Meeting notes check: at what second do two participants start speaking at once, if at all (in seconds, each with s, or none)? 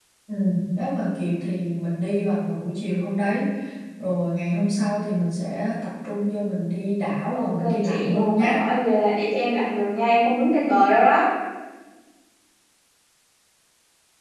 7.3 s